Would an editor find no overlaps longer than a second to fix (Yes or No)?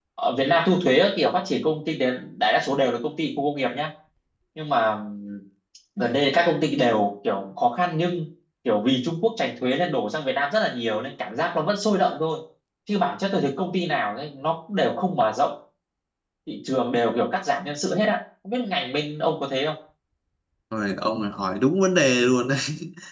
Yes